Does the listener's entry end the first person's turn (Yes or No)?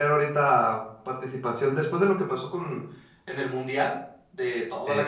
No